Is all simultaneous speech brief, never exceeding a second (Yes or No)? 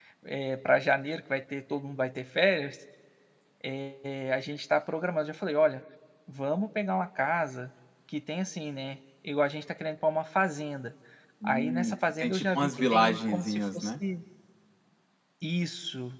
No